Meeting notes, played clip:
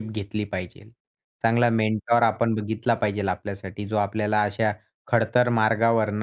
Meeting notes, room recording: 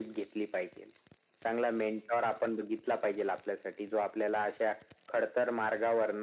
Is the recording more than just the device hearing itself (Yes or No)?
No